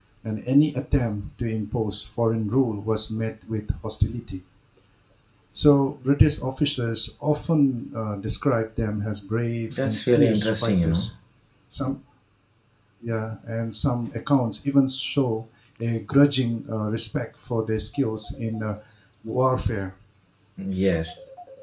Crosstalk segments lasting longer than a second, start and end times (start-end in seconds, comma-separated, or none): 9.7-11.1